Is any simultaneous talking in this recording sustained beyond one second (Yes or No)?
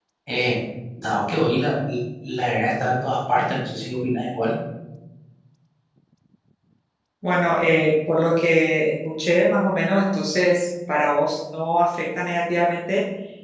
No